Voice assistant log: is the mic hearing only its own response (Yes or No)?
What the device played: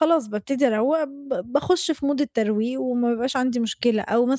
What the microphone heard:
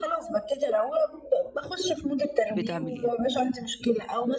No